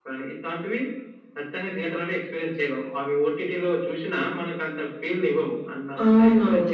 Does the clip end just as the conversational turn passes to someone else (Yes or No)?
Yes